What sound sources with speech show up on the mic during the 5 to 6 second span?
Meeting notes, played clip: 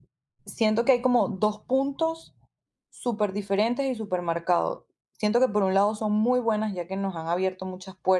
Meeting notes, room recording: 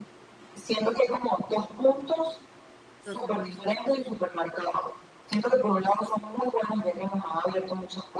echo only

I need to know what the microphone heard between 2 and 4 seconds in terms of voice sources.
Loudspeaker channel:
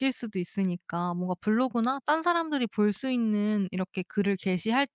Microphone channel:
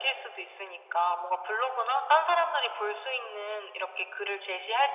echo only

